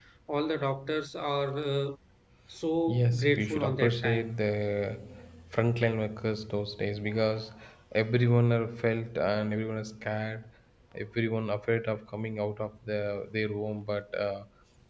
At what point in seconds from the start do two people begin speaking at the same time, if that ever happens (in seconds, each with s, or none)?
2.9 s